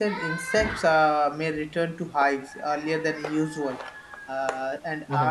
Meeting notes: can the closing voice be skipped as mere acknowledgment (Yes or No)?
Yes